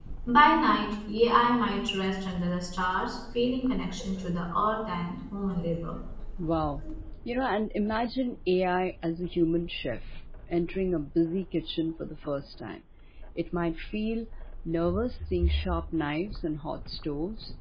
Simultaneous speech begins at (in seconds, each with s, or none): none